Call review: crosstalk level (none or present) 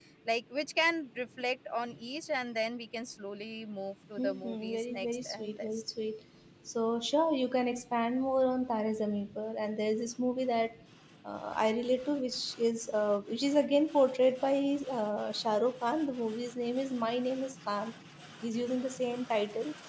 present